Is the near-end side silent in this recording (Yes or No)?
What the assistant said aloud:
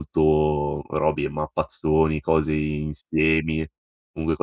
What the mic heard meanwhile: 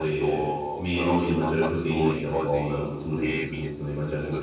No